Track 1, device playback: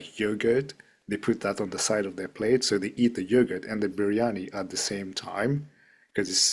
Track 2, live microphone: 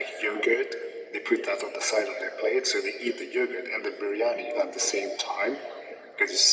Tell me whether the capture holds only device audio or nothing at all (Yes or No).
Yes